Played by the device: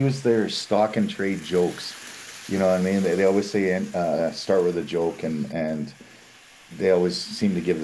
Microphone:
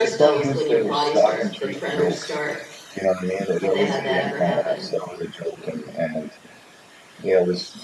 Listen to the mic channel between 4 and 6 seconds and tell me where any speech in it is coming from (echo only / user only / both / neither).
both